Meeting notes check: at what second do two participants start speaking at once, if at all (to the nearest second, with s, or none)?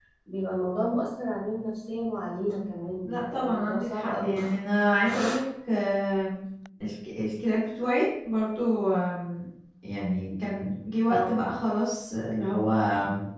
3 s